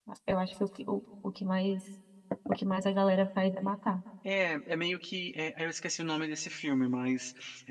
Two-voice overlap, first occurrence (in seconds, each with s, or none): none